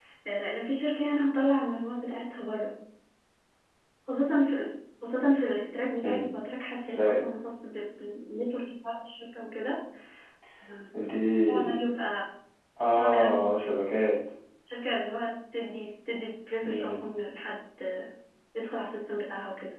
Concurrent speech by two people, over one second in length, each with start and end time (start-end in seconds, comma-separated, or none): 12.9-14.2